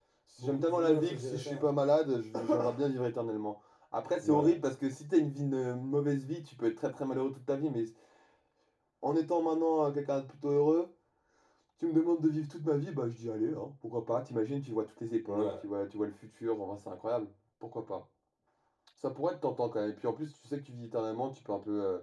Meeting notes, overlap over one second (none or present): present